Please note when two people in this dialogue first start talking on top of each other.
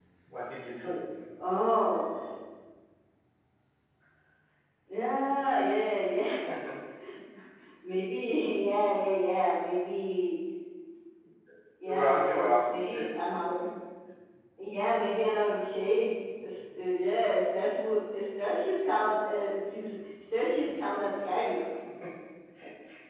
11.9 s

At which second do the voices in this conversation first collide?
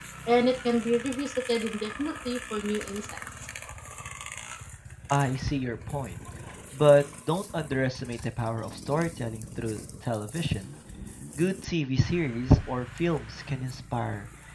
none

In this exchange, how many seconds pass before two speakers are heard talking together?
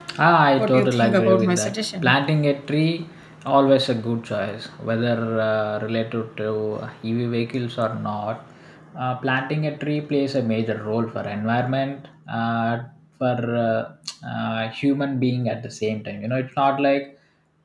0.6 s

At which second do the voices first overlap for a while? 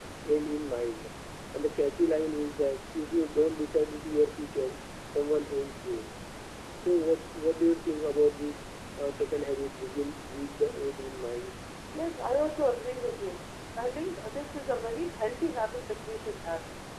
none

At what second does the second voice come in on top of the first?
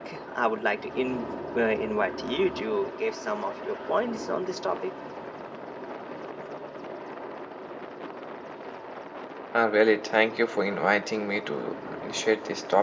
none

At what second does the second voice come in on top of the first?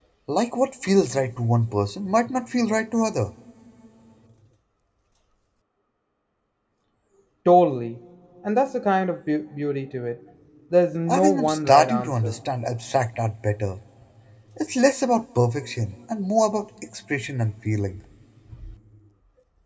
11.1 s

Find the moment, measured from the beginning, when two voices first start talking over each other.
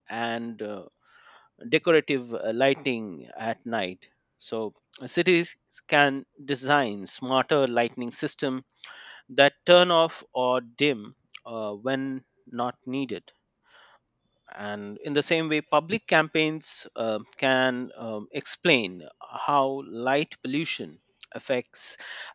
none

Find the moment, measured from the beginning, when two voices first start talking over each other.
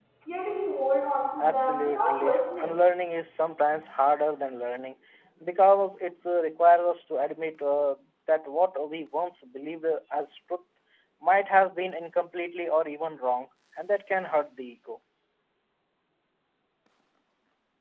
1.4 s

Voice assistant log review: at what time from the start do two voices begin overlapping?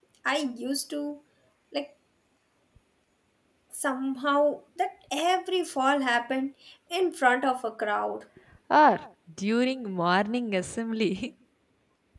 none

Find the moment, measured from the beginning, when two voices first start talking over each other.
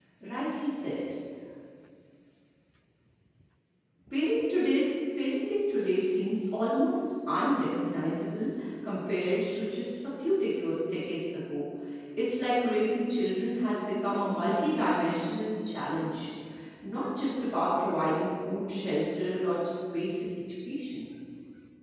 none

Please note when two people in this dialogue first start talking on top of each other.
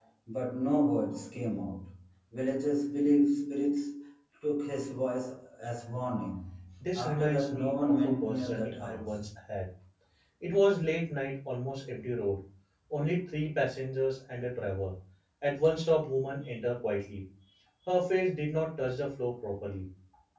7.0 s

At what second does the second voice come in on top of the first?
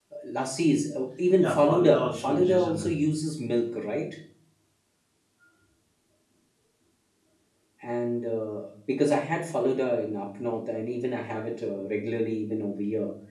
1.4 s

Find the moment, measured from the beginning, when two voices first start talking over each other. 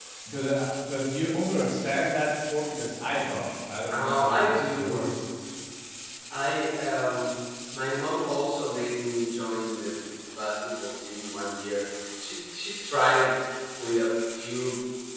3.9 s

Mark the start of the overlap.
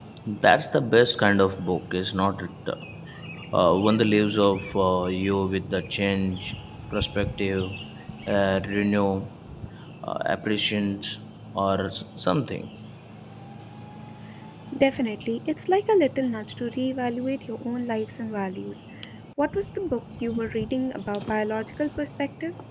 none

